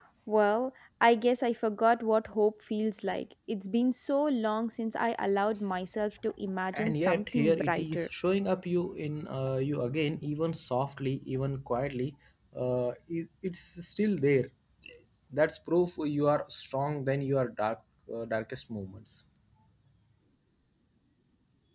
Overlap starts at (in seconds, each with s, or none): 6.7 s